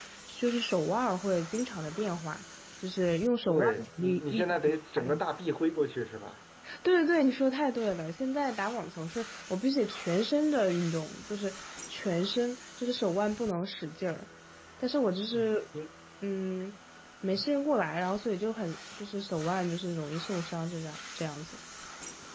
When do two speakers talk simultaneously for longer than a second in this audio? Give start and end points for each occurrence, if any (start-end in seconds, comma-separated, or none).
3.5-5.2